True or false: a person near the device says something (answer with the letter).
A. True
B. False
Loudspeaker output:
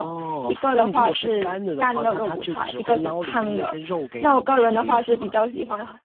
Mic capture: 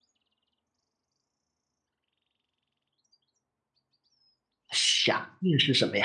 A